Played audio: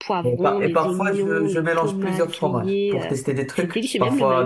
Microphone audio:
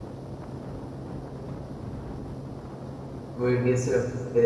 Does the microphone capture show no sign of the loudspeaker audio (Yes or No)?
Yes